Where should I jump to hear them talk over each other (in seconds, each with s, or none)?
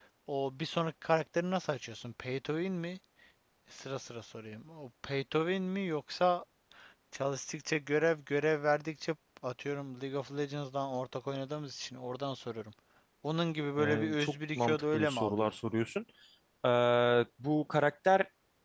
13.8 s